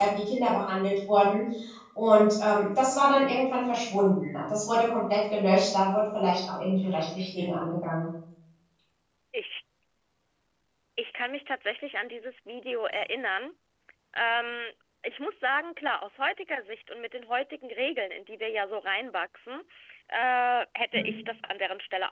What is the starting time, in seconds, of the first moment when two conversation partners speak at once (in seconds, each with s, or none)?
none